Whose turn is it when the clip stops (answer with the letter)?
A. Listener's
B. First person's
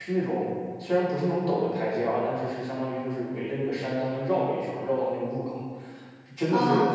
B